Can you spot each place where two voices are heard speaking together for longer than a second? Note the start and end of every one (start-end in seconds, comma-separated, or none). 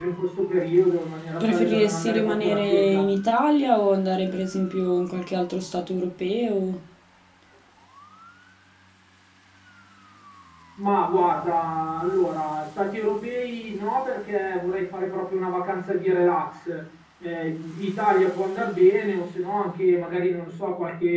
1.4-3.1